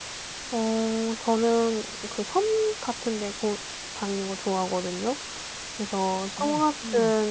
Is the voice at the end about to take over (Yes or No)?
No